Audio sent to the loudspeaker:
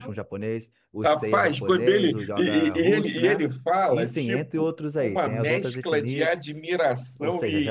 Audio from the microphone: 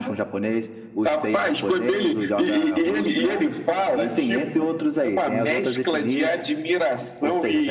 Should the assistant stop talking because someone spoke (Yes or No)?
No